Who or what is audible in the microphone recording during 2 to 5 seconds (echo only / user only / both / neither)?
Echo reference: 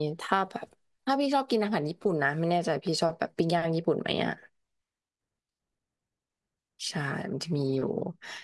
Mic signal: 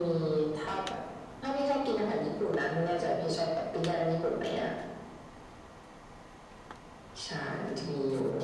echo only